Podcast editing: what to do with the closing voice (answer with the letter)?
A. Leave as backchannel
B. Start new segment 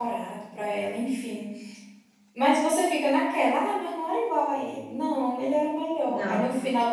A